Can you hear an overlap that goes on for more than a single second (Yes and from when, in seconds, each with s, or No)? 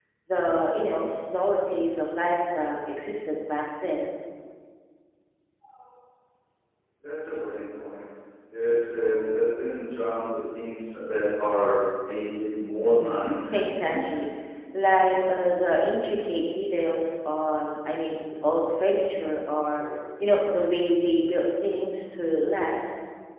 Yes, from 12.8 s